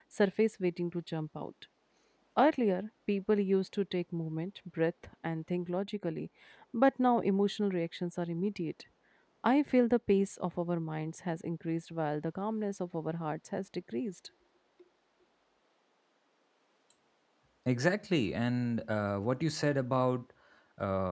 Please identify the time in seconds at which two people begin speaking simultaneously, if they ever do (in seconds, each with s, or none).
none